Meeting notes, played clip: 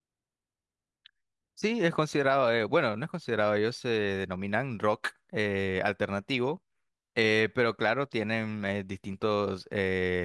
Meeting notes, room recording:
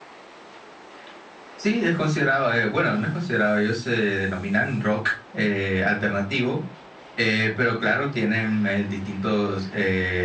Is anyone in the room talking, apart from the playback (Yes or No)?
No